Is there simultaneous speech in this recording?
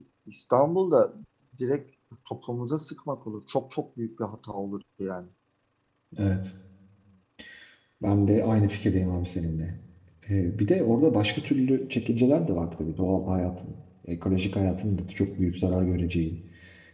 No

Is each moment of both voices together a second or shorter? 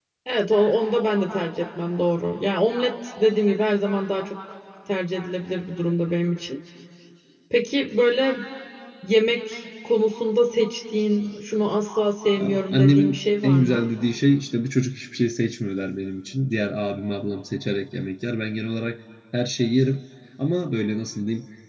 No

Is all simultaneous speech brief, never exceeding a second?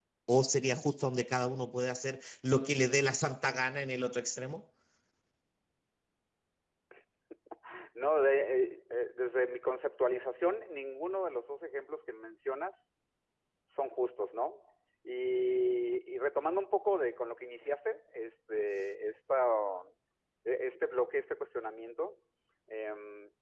Yes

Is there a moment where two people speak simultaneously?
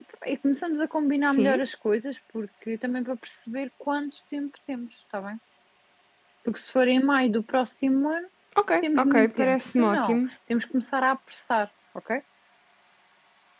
Yes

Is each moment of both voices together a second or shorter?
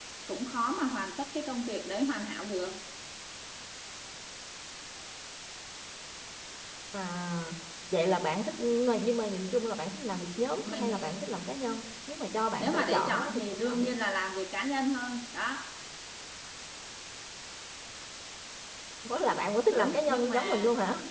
No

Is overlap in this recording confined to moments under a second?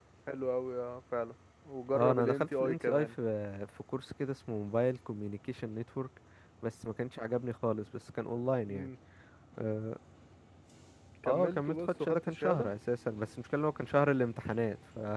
No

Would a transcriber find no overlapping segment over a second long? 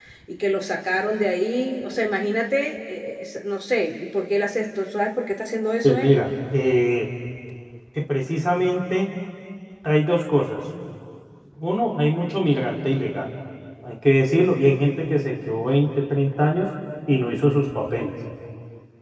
Yes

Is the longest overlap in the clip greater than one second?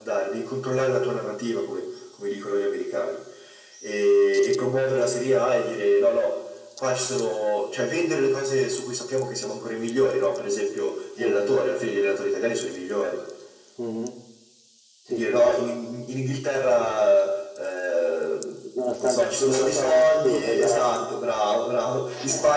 Yes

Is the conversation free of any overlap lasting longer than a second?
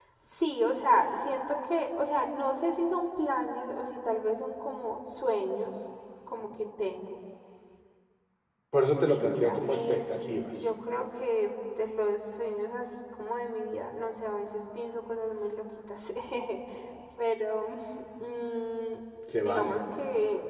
No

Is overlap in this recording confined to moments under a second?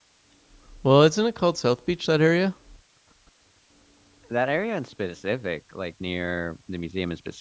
Yes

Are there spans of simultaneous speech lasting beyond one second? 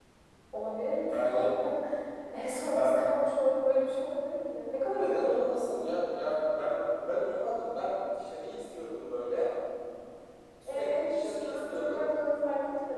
Yes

